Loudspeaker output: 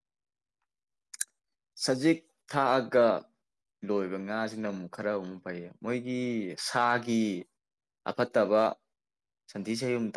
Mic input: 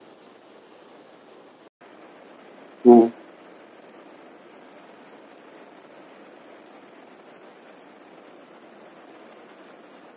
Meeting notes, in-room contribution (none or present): present